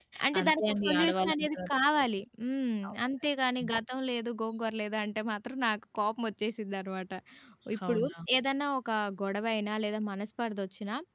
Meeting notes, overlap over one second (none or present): present